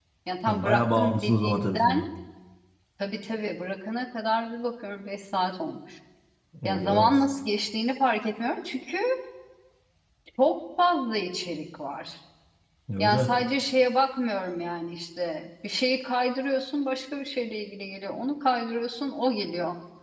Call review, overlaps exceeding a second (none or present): present